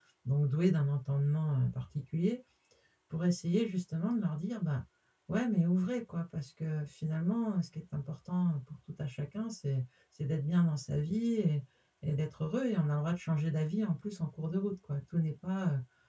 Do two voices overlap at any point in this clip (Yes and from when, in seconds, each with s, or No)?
No